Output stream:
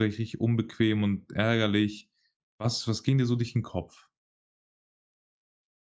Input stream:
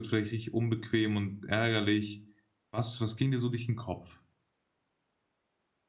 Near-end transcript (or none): none